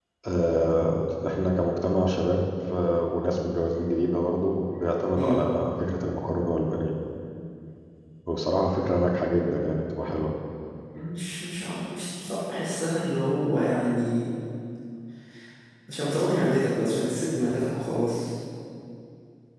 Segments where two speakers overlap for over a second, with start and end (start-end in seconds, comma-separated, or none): none